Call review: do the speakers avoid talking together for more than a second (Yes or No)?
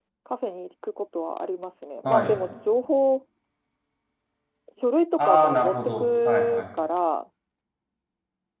No